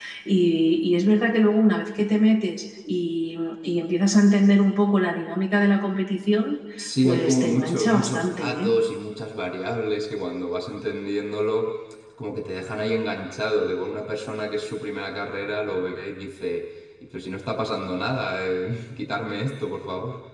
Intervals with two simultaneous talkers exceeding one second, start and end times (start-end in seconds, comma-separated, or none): 7.0-8.7